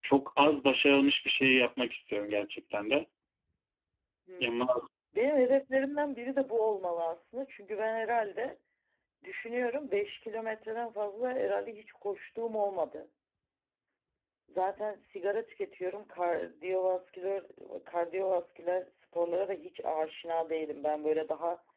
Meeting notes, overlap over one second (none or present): none